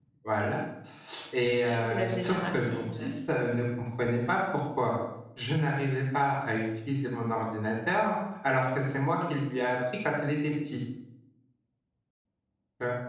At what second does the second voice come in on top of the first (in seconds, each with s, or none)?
1.6 s